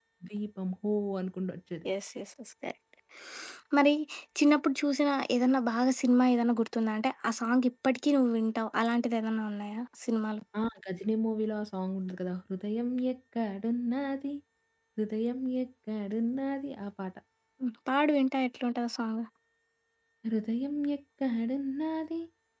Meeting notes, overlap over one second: none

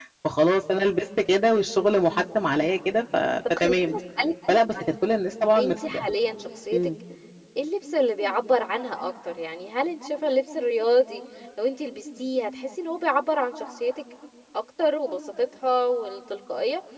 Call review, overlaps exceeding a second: none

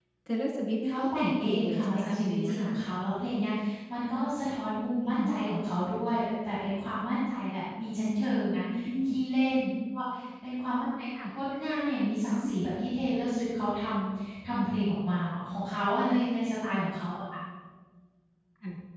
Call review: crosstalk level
present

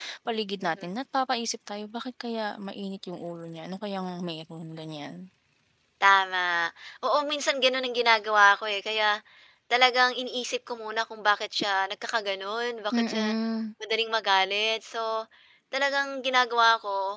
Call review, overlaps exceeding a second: none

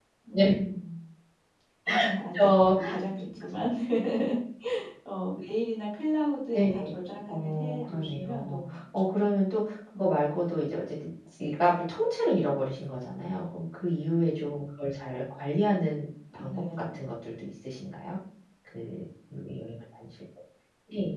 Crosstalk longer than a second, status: present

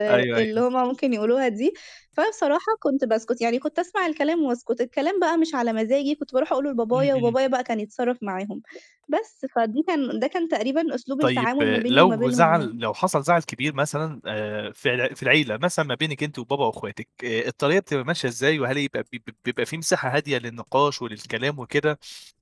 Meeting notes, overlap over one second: present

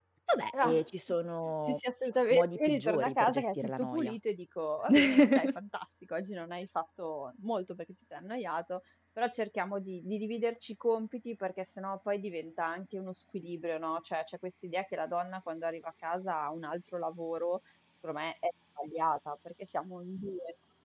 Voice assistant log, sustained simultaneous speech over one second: present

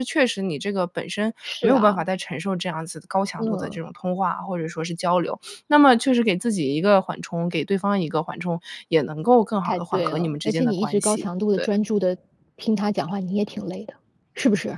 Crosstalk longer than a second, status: present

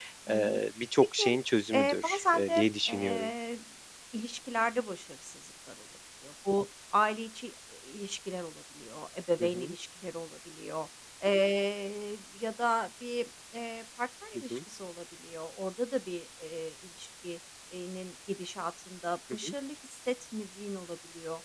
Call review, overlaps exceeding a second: present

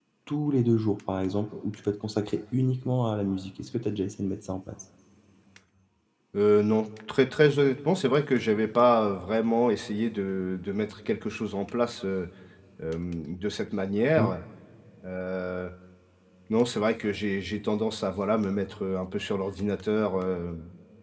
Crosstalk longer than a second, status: none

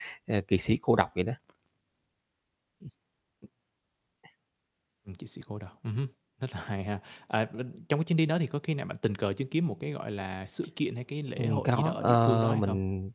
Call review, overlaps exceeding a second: present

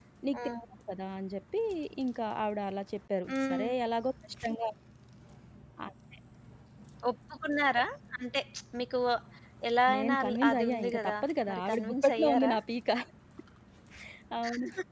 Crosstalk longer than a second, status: present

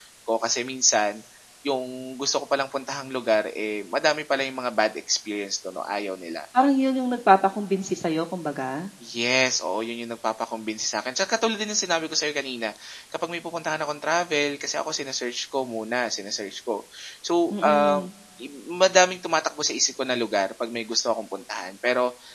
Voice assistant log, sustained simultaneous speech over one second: none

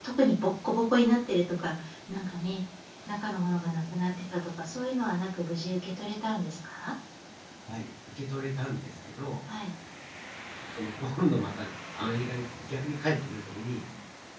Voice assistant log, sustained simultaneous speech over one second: none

